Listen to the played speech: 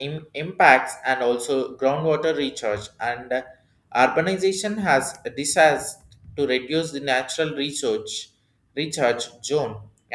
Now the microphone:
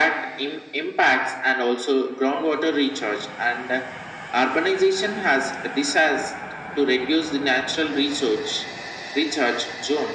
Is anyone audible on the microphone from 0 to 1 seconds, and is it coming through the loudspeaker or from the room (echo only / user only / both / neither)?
echo only